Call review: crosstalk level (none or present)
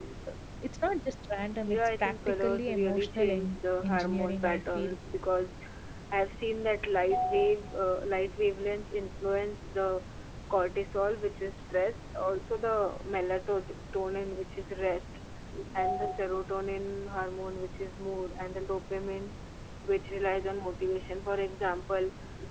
present